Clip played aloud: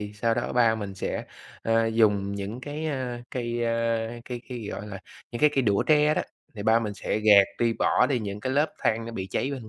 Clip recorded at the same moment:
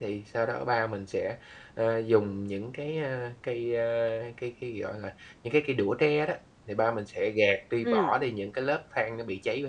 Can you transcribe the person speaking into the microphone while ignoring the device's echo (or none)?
Ừm.